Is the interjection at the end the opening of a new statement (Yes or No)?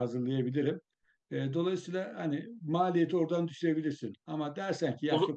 No